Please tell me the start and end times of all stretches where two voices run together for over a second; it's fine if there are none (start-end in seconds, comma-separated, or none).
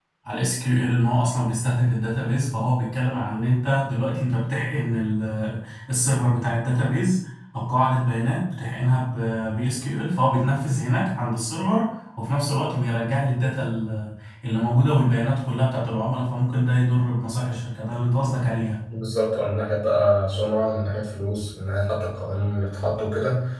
none